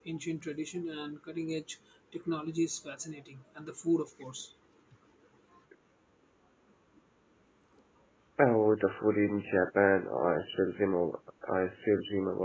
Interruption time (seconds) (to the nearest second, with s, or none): none